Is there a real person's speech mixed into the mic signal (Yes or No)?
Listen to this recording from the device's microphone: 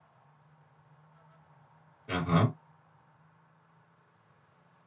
Yes